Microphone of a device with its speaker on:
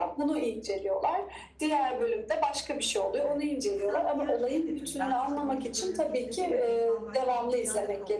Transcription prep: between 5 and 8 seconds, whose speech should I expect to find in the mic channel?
both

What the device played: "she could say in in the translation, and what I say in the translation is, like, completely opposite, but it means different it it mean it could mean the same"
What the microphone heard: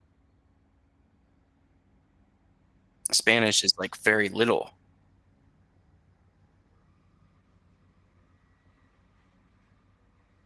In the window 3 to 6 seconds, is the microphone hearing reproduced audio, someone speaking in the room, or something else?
user only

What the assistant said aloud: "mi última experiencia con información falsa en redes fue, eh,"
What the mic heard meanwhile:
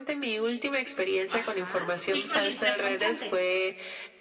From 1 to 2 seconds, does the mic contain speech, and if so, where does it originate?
both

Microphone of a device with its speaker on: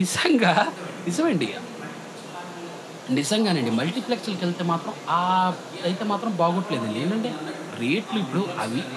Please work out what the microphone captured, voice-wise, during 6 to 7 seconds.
both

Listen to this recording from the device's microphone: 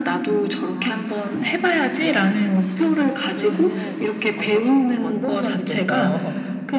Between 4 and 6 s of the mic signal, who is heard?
both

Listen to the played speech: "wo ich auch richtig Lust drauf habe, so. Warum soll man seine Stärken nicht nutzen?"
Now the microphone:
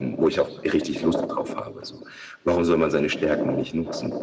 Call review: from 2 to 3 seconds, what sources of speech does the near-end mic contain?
echo only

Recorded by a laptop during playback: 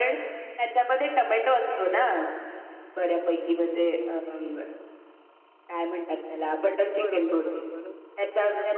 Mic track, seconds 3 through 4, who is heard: echo only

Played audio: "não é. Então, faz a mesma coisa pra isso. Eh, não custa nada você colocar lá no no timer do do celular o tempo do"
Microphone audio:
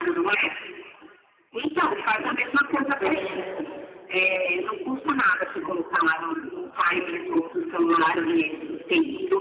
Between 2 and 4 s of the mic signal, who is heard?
both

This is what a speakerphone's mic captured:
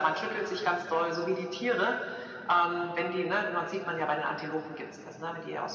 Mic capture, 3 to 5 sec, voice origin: echo only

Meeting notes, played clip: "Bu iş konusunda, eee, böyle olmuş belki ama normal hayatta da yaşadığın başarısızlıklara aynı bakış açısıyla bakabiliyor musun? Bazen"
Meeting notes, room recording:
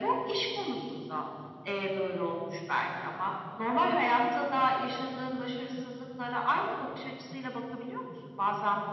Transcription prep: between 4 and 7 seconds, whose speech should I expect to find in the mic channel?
echo only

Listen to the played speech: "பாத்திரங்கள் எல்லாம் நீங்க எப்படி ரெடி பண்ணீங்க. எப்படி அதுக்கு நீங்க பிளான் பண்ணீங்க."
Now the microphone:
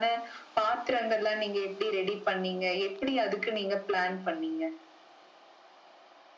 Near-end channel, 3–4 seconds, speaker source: echo only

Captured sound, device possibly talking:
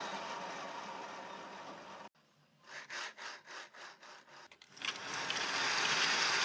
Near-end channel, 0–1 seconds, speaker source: neither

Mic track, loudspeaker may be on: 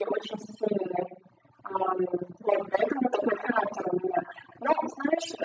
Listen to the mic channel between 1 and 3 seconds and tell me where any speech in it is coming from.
echo only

